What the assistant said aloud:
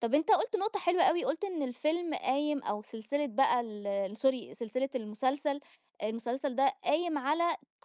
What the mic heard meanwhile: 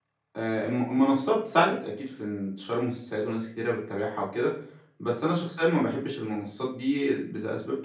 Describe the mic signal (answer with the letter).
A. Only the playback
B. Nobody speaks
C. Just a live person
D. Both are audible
C